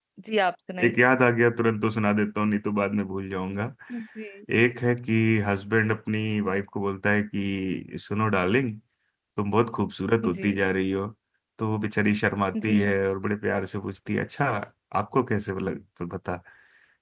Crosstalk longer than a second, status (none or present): none